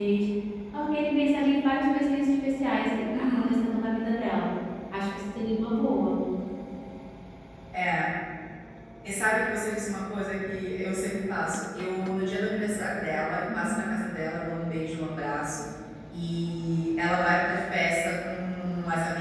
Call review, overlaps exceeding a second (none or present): none